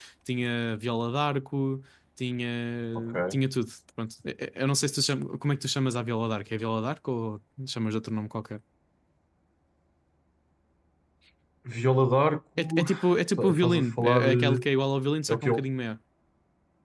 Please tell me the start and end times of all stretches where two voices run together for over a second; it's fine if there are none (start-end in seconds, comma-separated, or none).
13.4-14.7